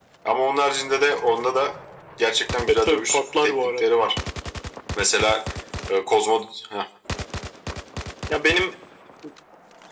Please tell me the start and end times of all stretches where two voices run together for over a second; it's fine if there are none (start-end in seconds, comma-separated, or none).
2.7-3.9